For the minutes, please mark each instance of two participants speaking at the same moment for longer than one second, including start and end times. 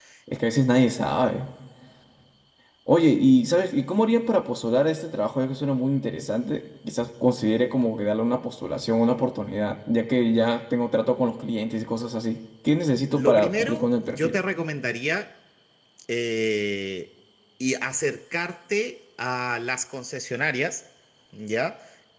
13.1-14.4

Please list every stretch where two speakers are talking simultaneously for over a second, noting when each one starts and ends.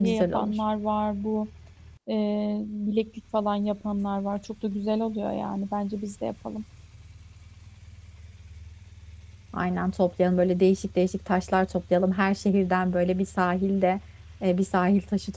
none

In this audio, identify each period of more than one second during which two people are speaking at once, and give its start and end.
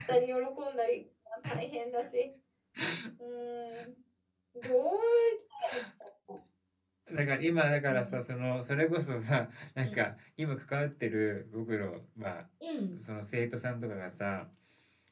none

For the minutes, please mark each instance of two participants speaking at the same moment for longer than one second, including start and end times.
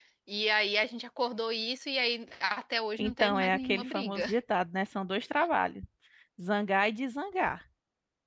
3.0-4.3

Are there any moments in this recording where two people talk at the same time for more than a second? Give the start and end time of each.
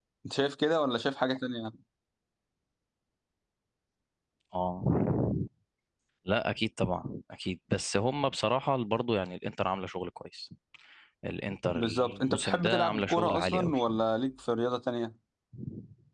11.7-13.8

